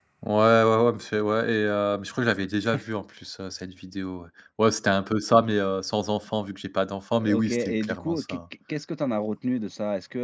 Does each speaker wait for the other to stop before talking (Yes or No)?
No